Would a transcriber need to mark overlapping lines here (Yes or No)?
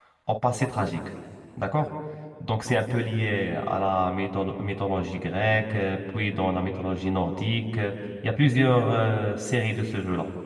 No